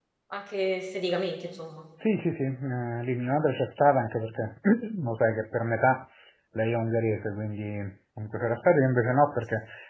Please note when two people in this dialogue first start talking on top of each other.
none

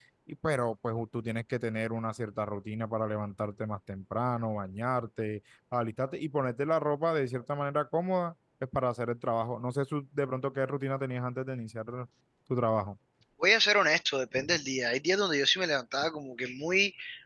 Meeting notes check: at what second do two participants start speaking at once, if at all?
none

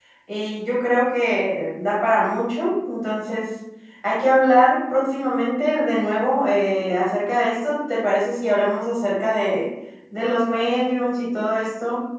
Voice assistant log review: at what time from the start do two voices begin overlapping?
none

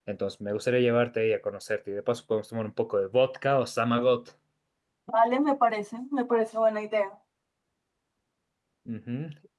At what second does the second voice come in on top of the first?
none

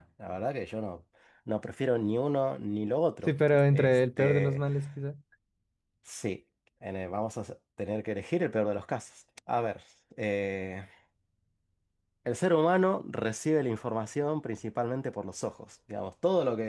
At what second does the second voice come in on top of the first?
3.3 s

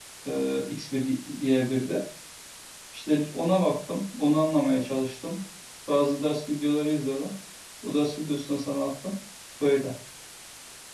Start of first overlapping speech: none

